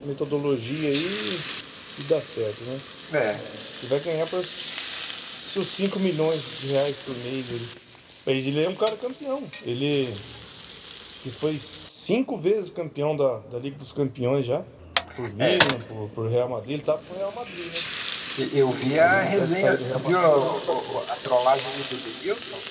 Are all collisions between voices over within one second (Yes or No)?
No